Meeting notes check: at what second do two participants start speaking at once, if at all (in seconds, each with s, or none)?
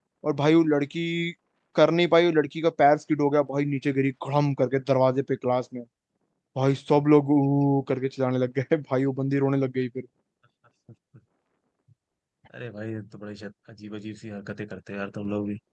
none